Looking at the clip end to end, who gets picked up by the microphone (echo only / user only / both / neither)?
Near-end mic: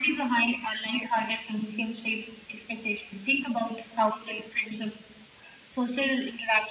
echo only